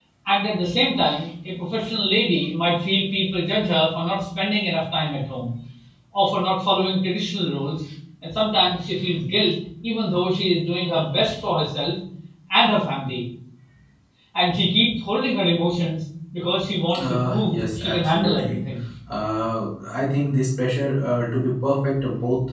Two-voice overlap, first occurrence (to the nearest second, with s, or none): 17 s